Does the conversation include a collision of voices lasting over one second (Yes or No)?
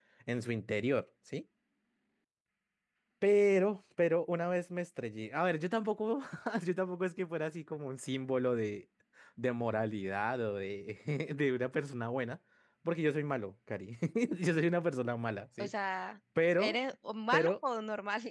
No